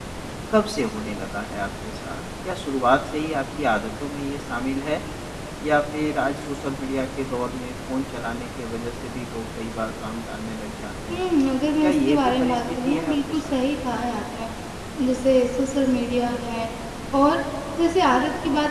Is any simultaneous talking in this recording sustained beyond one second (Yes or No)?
Yes